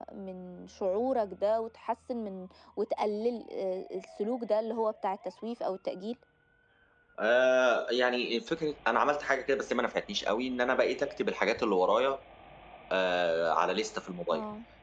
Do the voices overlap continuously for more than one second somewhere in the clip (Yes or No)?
No